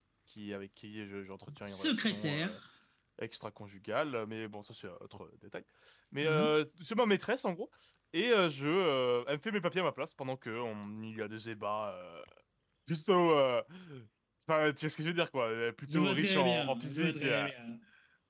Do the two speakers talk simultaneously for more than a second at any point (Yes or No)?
Yes